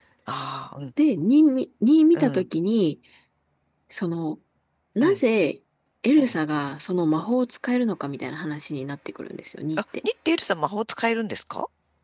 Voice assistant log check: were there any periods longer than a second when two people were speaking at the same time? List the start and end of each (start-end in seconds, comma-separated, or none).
none